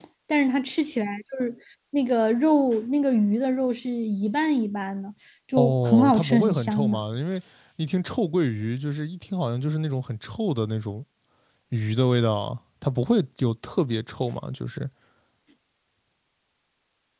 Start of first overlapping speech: 5.6 s

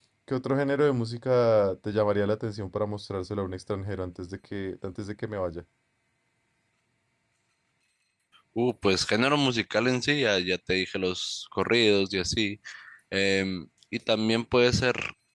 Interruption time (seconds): none

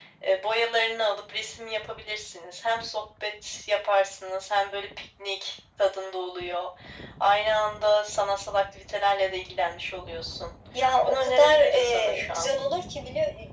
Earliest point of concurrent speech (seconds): 11.0 s

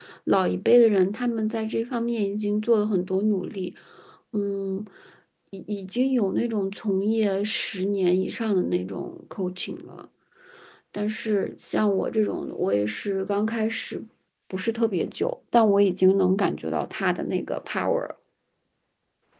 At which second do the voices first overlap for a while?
none

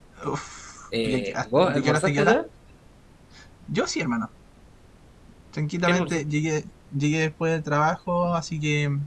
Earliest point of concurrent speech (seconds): 1.0 s

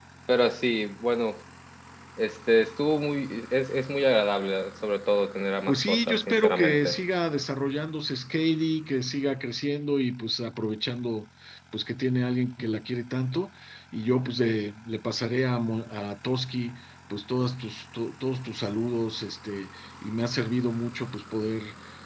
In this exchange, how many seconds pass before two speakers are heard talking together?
5.7 s

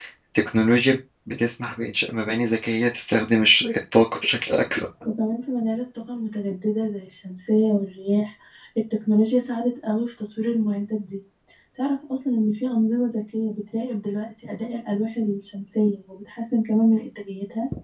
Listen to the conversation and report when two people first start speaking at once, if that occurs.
none

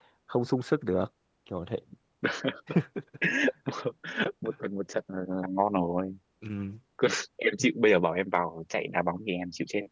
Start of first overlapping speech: none

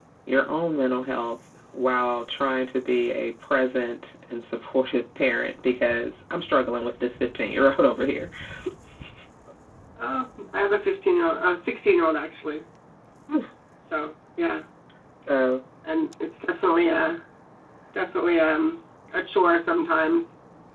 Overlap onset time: none

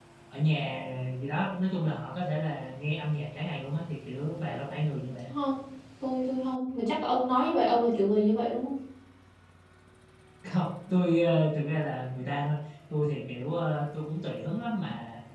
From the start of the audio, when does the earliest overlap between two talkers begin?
none

